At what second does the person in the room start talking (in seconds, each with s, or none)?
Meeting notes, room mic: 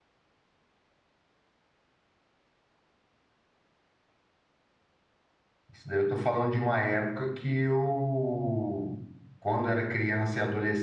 5.7 s